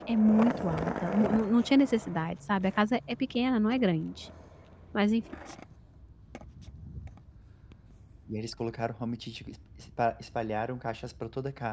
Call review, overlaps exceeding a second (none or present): none